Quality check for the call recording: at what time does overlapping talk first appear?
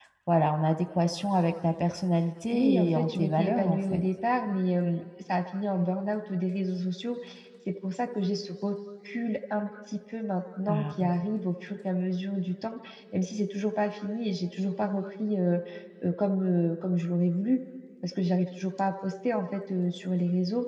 2.5 s

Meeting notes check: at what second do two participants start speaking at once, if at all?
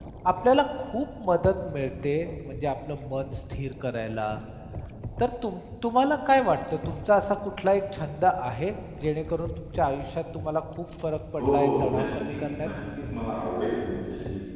11.4 s

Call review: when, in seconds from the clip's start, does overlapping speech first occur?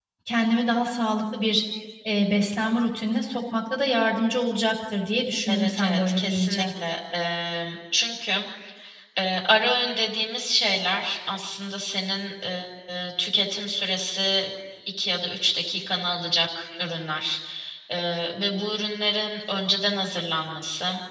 5.5 s

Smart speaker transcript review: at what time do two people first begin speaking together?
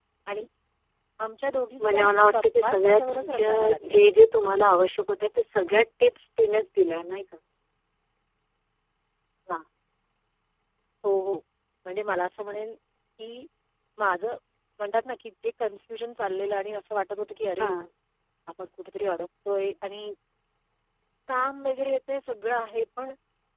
1.8 s

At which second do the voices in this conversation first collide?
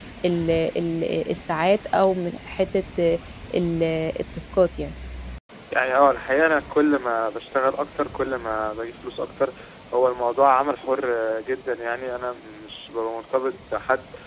none

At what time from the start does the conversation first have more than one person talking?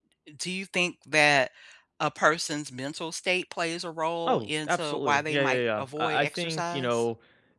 4.3 s

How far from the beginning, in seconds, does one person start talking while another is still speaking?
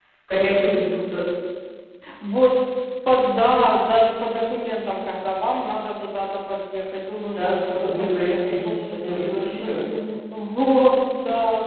7.1 s

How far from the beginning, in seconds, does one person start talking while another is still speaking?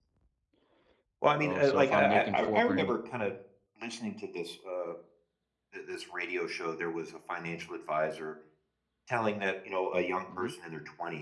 1.4 s

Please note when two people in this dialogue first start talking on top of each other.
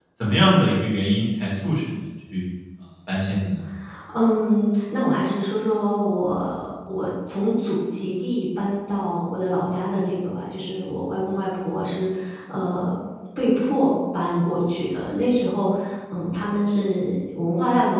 none

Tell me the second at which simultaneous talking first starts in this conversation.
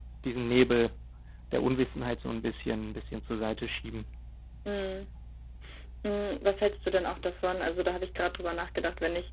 none

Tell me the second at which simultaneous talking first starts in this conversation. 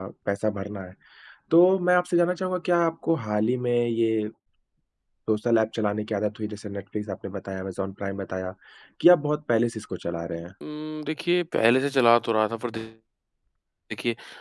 none

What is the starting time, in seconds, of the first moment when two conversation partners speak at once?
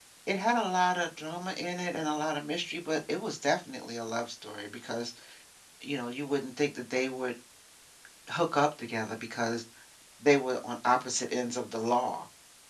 none

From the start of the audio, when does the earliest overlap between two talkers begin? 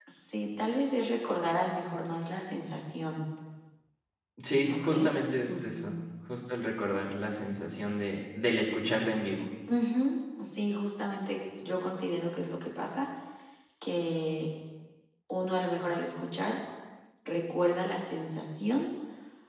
4.6 s

